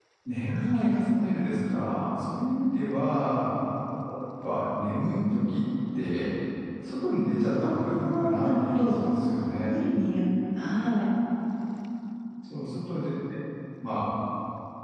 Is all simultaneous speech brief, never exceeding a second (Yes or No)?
No